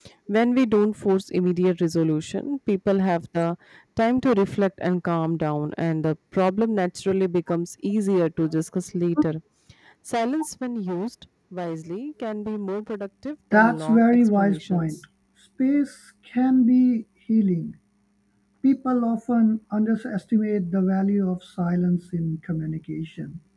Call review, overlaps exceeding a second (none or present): present